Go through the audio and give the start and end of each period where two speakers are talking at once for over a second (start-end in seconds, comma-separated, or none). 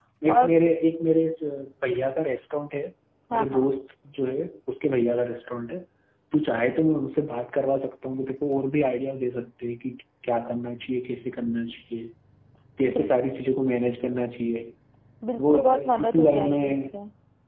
15.4-17.0